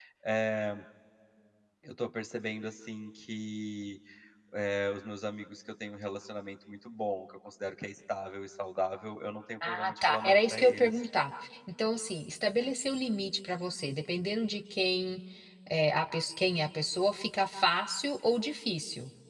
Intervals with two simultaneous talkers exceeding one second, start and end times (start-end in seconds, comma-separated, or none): 9.6-11.0